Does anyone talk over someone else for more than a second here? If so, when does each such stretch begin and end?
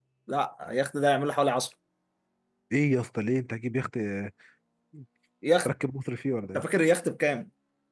none

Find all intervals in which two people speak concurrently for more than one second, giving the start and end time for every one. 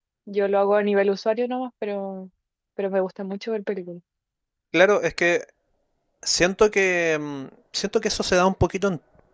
none

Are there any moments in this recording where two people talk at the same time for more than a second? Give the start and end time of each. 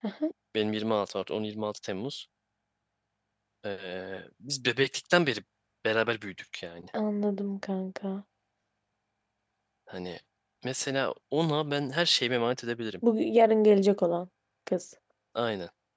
none

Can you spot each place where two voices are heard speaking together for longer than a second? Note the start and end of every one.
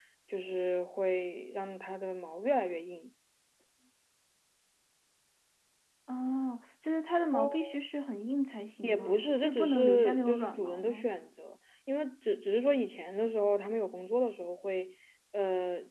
8.8-11.1

